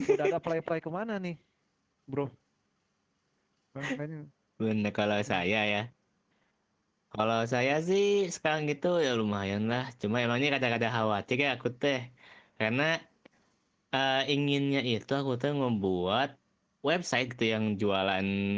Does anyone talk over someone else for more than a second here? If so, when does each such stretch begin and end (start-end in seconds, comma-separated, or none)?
none